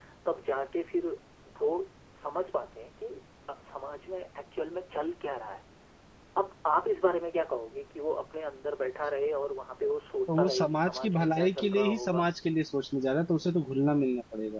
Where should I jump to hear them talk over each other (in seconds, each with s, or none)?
10.3 s